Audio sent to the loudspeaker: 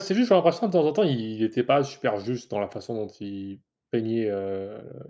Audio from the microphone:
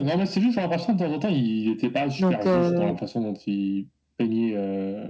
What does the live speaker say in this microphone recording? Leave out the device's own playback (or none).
Donc heu